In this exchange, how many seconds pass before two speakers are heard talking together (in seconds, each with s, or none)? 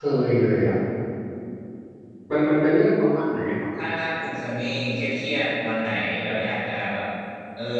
none